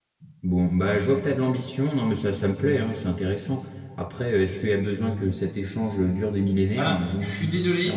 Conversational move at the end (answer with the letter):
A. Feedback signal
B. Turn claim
B